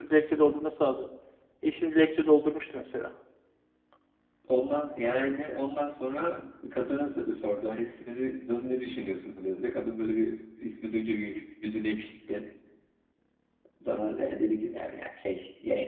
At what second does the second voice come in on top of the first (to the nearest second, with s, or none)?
none